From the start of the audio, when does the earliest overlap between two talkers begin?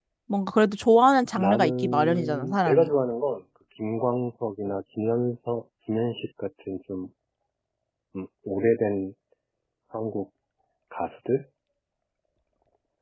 1 s

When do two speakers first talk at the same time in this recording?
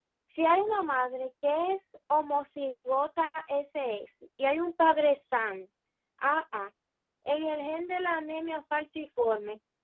none

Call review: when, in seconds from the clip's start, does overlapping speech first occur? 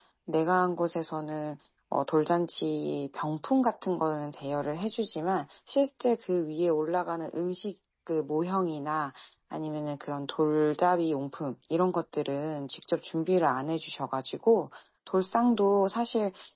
none

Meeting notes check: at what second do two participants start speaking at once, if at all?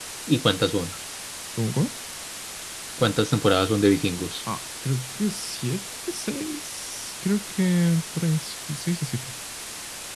none

